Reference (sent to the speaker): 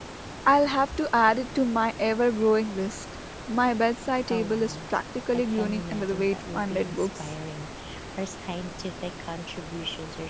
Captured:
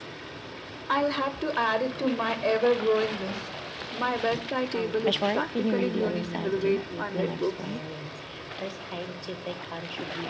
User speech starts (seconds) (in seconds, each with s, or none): 5.0 s